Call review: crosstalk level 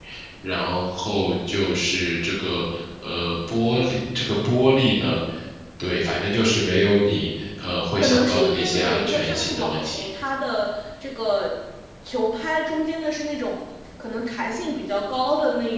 present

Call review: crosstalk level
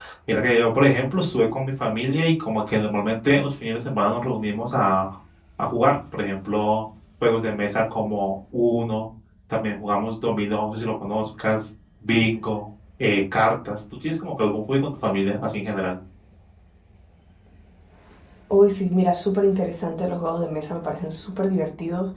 none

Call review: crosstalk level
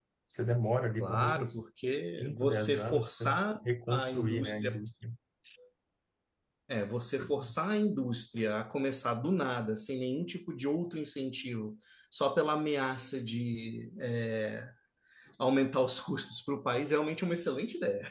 present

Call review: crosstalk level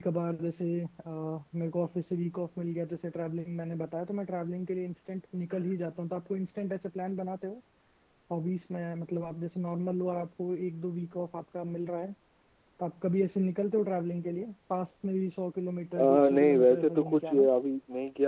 present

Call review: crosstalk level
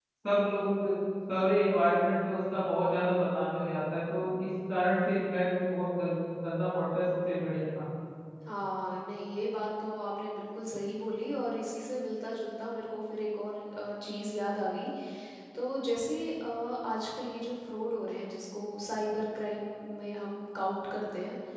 none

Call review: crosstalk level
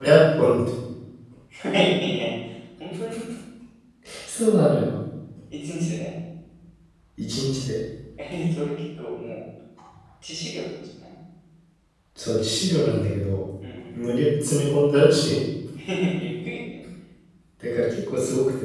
none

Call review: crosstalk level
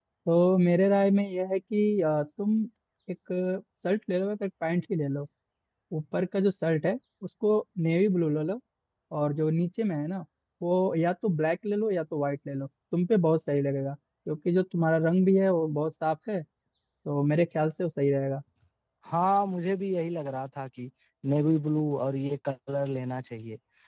none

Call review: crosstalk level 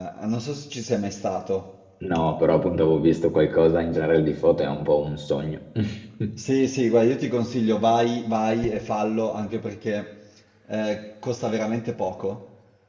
none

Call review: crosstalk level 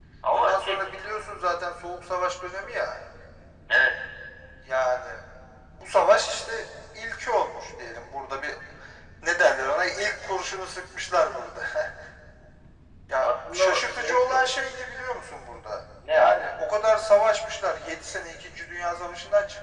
present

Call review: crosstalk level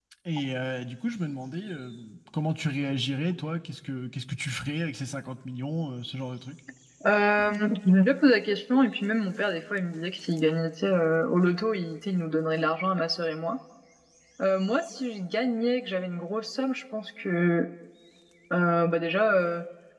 none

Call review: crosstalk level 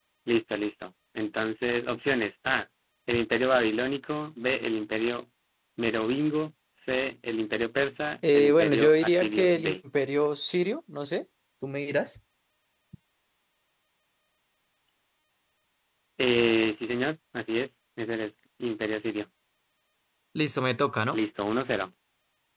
present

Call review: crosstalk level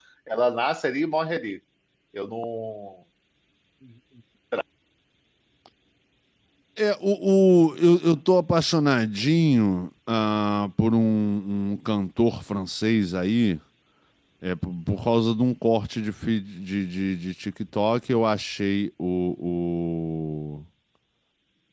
none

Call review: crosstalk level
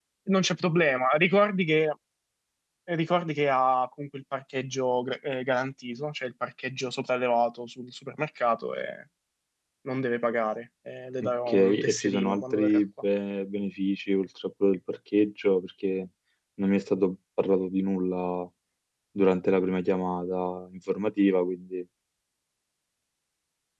present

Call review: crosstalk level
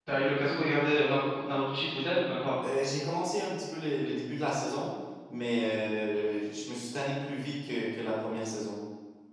none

